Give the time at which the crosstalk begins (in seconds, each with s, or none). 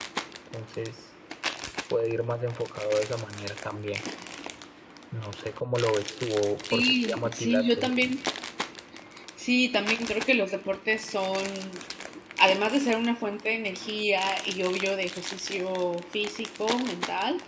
6.7 s